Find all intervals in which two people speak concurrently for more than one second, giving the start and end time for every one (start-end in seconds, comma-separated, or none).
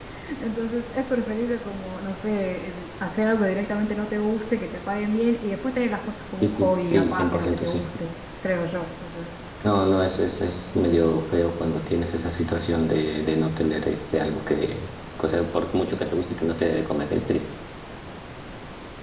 6.4-7.8